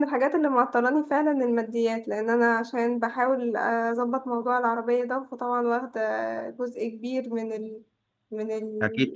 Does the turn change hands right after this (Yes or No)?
Yes